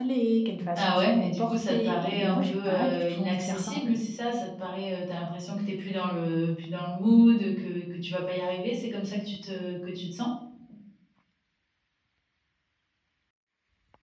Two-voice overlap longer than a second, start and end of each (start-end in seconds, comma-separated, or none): 0.8-3.9